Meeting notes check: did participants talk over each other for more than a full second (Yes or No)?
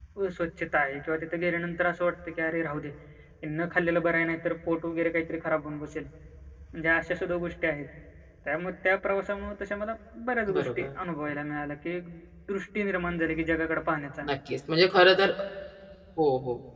No